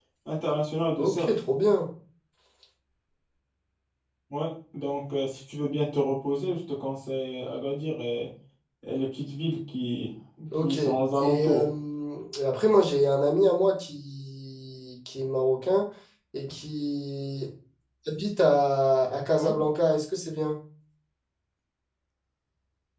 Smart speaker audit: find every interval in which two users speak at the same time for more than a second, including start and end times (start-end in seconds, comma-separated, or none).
none